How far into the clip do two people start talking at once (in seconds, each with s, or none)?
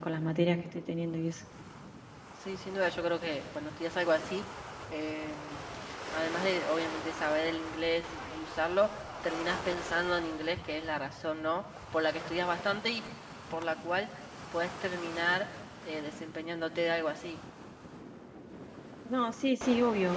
none